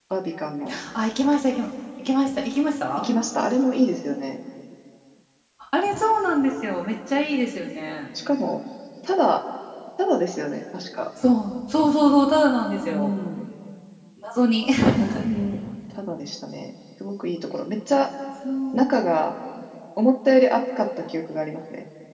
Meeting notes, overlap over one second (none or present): none